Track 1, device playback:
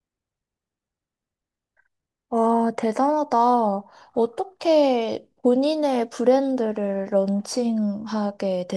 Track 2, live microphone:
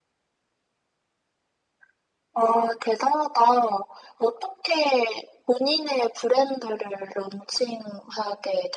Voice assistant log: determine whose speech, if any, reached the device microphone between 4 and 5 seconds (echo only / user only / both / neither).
echo only